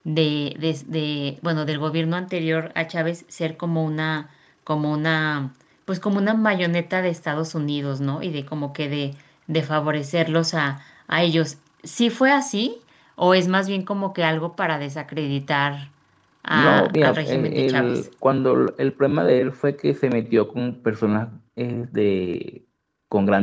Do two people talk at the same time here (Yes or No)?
Yes